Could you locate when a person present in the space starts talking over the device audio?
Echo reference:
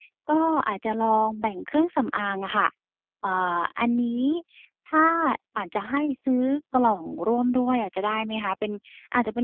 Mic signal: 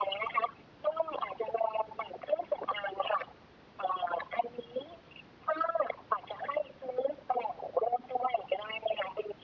none

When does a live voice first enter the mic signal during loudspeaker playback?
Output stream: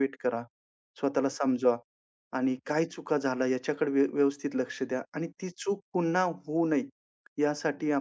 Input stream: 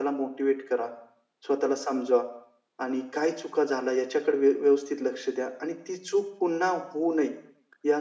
none

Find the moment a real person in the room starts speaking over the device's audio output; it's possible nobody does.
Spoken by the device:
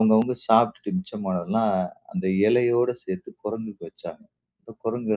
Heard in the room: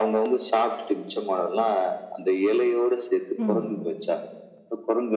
3 s

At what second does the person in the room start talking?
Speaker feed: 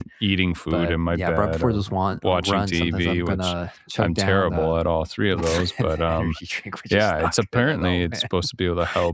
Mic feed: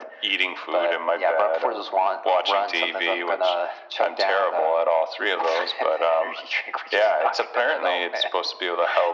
none

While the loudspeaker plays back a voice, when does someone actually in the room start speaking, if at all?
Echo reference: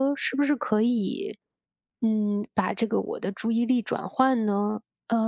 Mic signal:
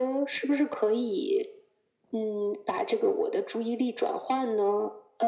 none

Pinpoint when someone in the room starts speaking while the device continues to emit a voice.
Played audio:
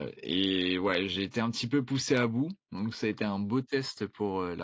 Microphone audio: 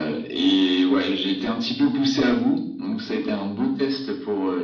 none

